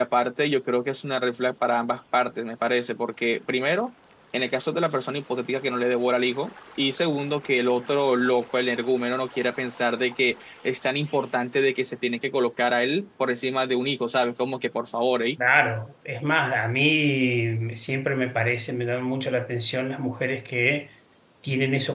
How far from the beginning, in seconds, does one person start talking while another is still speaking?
none

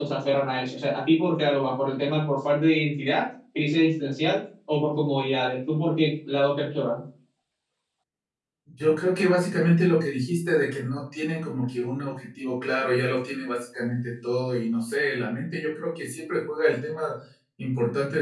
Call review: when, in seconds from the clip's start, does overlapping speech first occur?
none

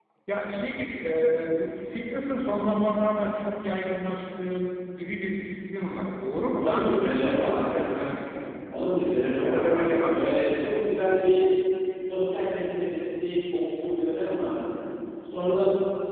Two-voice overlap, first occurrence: 6.6 s

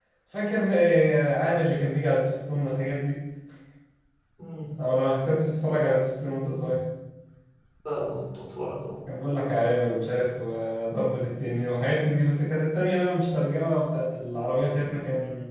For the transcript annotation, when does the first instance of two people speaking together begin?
none

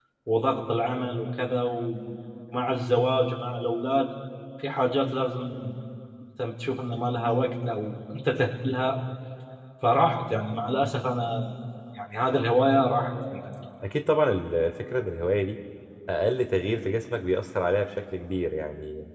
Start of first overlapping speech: none

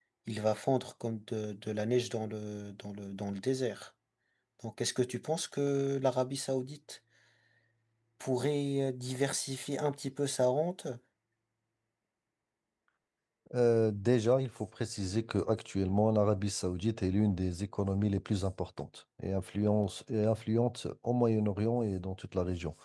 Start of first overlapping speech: none

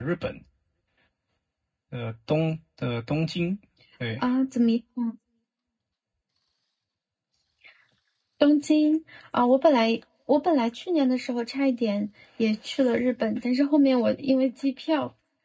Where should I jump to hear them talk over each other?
none

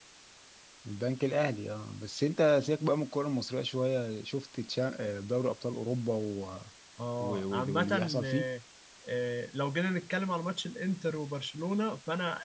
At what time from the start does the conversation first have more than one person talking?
7.2 s

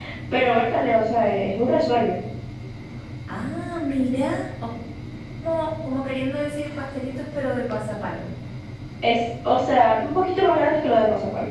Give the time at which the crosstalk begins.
none

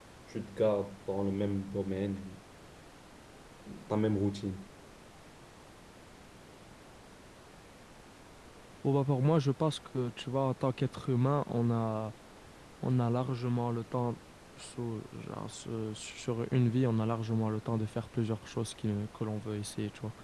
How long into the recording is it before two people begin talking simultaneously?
none

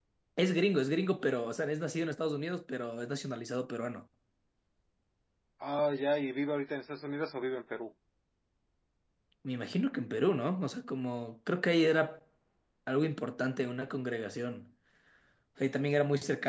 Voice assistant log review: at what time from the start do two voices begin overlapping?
none

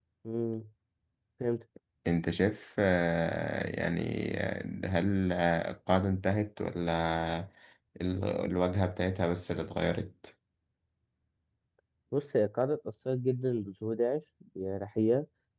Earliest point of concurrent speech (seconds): none

